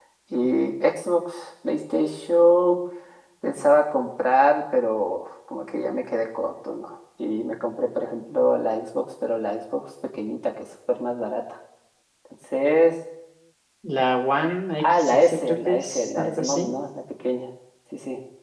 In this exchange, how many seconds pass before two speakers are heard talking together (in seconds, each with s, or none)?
14.8 s